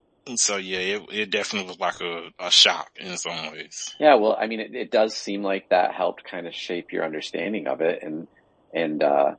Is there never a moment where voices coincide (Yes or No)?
Yes